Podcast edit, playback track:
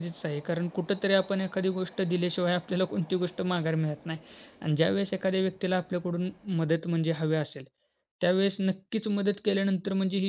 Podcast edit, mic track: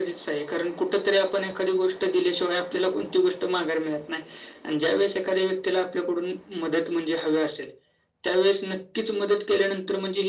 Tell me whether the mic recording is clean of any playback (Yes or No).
No